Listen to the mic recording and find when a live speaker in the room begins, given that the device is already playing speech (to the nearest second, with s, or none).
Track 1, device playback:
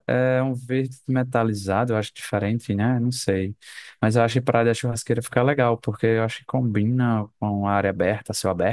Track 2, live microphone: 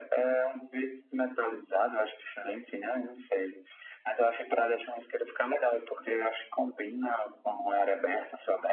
none